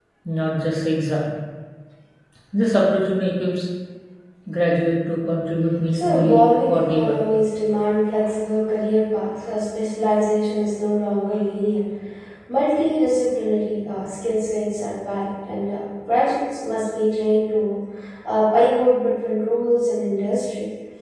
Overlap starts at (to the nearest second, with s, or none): 6 s